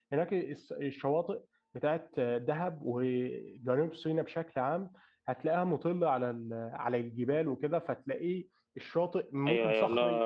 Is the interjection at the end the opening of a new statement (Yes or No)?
Yes